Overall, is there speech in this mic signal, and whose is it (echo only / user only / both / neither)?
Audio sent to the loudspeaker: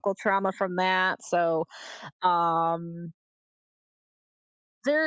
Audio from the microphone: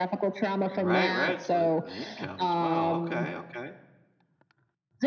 both